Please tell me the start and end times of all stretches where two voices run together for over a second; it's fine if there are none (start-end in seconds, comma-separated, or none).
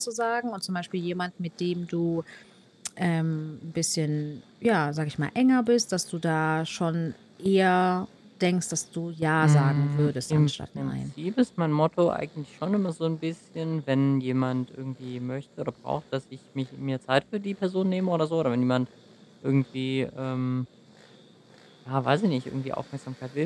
9.4-10.9